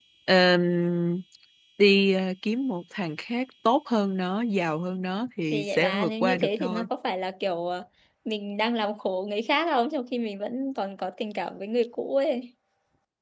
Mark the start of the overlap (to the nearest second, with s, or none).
6 s